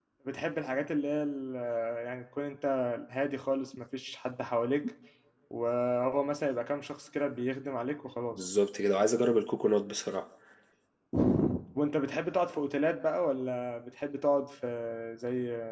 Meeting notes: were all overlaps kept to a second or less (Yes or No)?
Yes